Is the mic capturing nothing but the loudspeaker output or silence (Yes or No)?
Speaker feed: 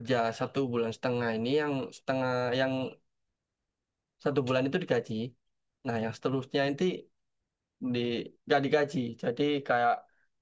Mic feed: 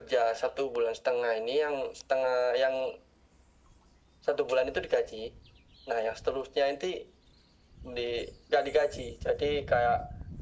Yes